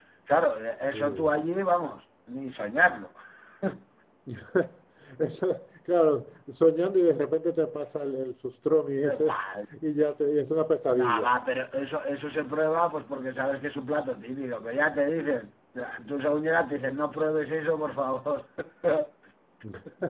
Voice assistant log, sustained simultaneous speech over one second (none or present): none